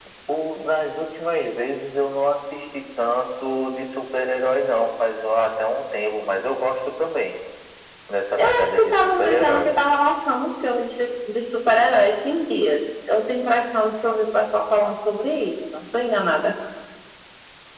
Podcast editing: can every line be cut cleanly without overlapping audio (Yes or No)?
No